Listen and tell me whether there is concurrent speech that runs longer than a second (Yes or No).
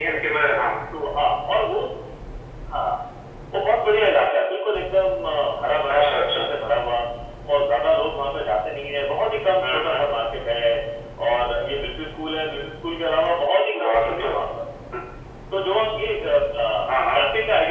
No